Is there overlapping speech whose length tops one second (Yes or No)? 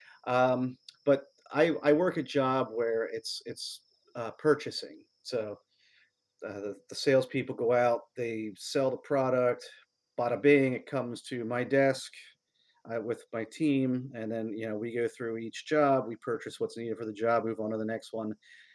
No